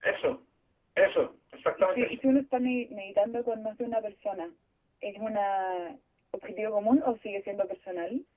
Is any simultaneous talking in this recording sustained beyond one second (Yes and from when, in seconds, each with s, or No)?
No